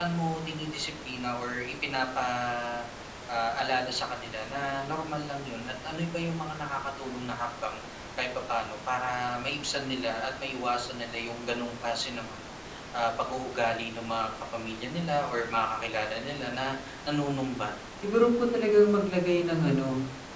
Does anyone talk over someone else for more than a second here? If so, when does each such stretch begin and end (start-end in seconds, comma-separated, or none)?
none